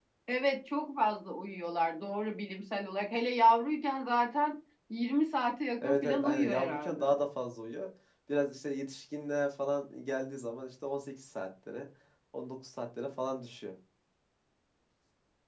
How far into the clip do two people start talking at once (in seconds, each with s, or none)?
5.8 s